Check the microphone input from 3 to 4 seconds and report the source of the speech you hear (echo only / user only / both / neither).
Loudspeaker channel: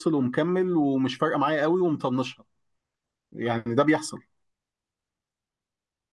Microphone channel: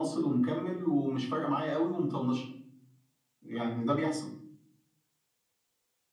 echo only